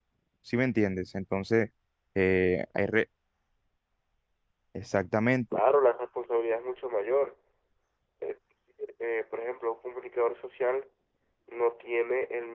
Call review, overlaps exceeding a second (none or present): none